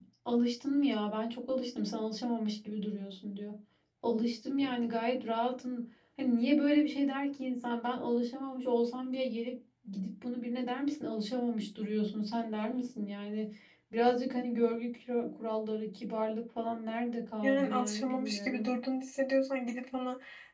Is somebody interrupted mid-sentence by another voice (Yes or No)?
Yes